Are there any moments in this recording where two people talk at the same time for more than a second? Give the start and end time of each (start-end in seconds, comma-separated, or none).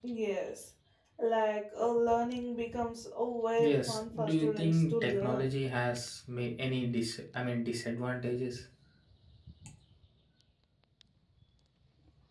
3.6-5.5